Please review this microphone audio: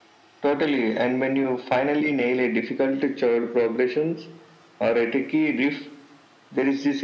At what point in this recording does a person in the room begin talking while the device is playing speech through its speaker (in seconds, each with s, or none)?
none